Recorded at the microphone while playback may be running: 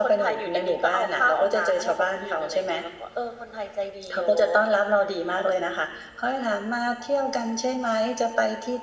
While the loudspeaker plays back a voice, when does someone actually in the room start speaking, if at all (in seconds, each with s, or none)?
none